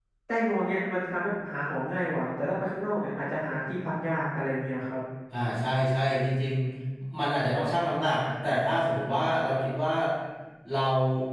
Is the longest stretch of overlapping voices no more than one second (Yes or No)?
Yes